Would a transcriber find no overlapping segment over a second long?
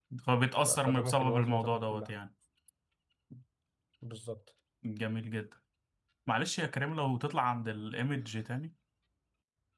No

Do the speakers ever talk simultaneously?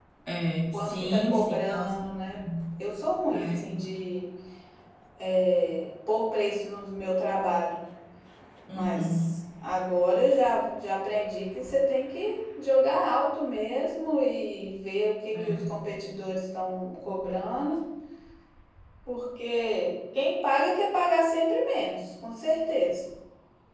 Yes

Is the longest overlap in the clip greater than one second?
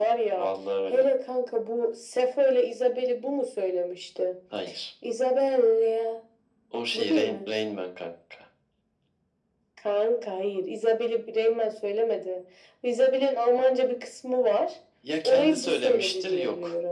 Yes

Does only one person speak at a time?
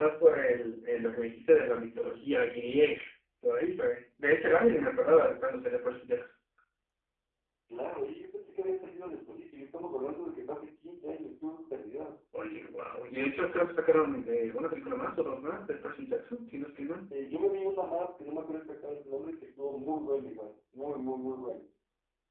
Yes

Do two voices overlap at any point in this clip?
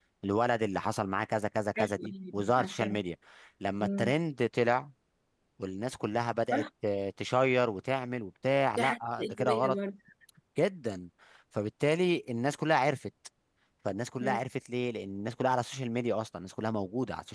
Yes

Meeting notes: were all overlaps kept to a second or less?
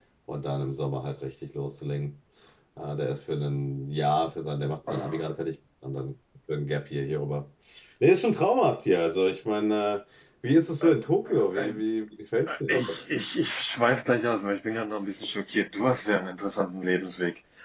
Yes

